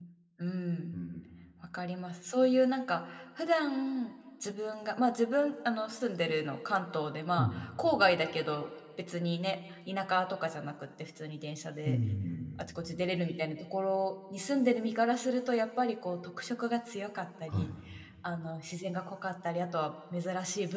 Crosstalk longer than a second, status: none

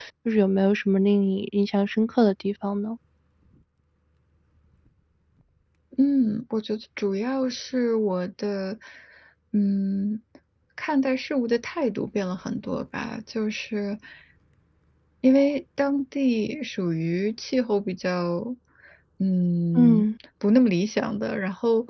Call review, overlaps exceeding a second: none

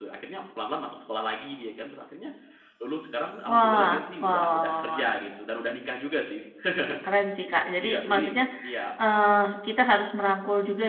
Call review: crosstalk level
present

